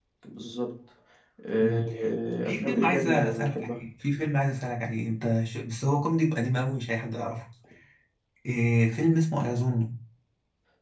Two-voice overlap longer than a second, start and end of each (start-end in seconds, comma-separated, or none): 2.4-3.8